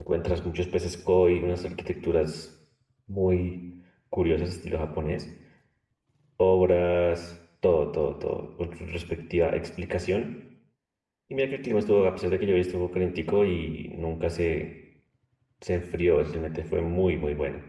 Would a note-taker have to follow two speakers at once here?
No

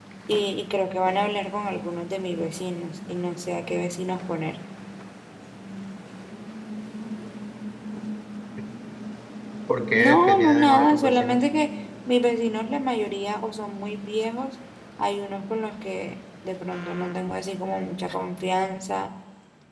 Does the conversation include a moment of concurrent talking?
Yes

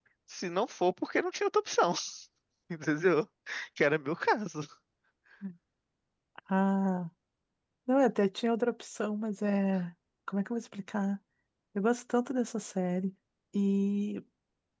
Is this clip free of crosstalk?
Yes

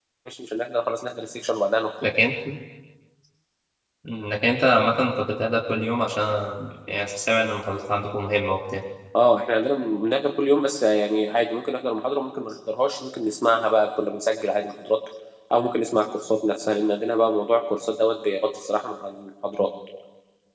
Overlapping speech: No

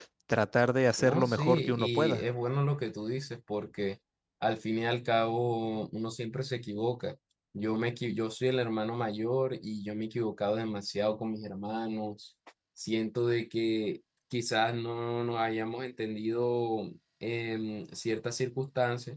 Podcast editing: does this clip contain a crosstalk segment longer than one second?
Yes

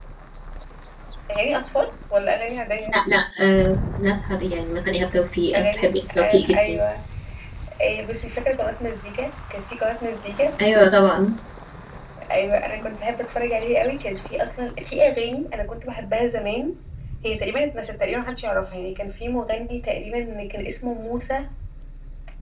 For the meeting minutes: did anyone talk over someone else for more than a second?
Yes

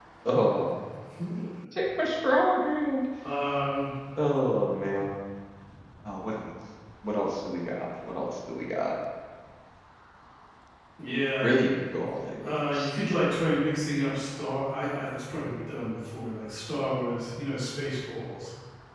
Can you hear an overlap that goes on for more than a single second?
No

